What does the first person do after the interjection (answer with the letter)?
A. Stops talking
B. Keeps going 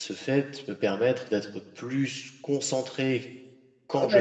A